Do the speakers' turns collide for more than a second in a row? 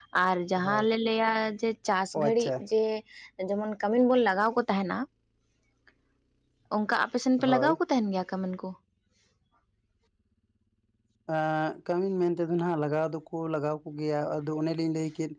No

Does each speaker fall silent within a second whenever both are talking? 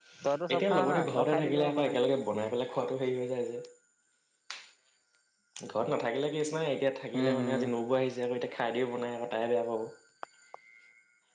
No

